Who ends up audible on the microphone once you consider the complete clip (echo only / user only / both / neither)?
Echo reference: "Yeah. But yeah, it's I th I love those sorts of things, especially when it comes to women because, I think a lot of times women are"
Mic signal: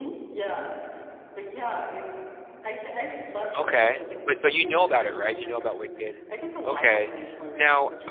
both